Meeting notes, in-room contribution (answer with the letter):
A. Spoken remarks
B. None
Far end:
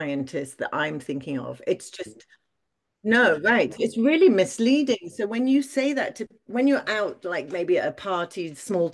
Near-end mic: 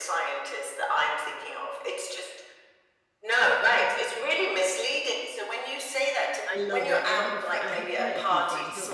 A